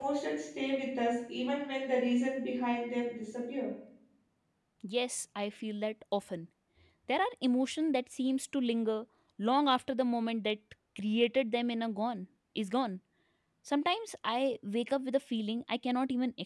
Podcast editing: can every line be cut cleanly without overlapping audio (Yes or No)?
Yes